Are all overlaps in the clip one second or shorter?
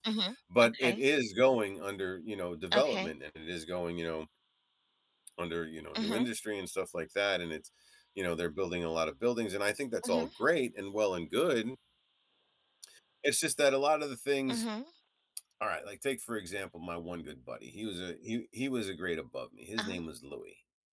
Yes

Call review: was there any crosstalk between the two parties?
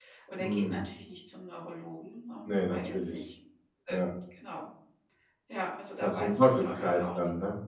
Yes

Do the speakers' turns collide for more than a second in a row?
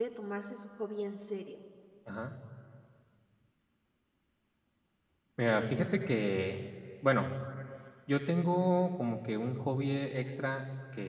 No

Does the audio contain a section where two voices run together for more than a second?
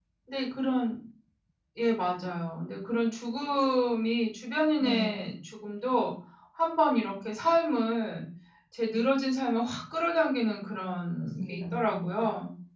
Yes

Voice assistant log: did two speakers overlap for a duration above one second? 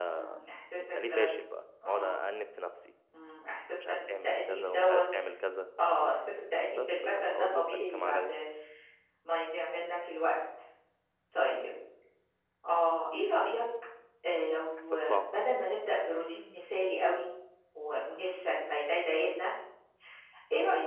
Yes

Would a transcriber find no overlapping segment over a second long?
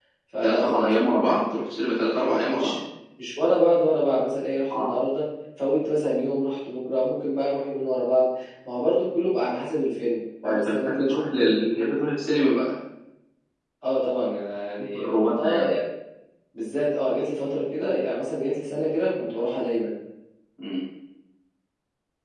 No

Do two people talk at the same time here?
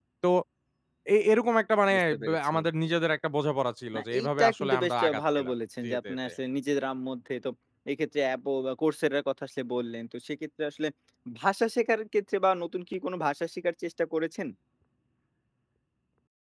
Yes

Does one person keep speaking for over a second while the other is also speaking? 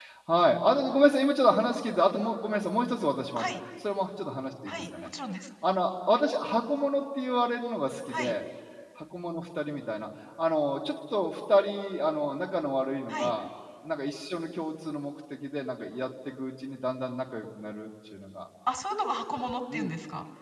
No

